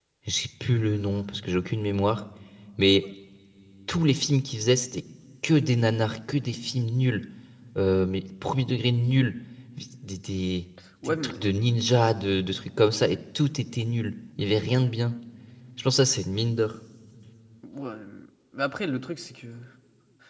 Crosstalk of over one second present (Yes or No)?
No